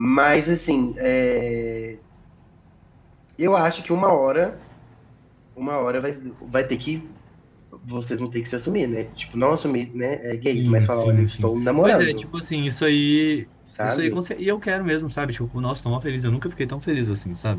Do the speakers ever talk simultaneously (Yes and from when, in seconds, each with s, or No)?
Yes, from 10.5 s